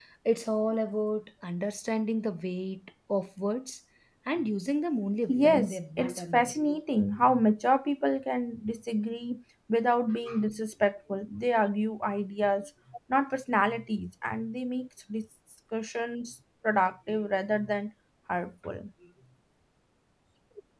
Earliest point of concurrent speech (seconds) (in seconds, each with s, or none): 5.3 s